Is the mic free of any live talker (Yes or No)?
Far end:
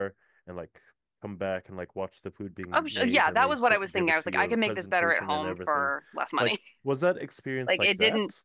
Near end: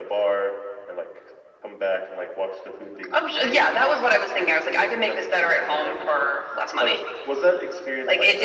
Yes